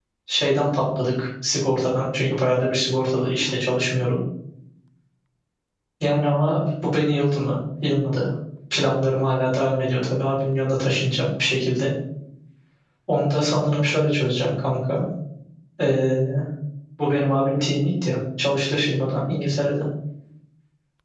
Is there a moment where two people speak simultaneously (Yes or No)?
No